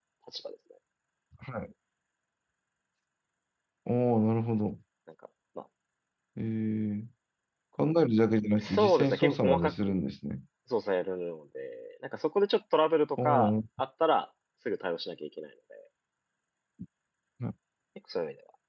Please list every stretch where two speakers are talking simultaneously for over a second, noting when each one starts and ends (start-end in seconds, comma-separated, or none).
8.6-10.0